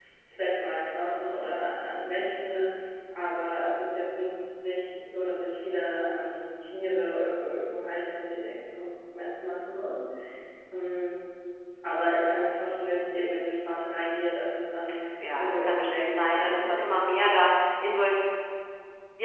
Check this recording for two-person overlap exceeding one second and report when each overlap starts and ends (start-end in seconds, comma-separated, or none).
15.4-16.8